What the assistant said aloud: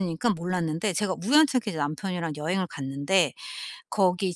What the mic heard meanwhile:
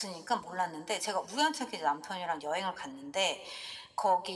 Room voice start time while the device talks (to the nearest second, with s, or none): none